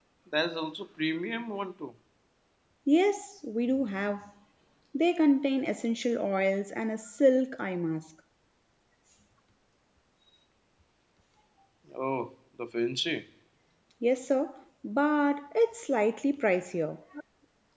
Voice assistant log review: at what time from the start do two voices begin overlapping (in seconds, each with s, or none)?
none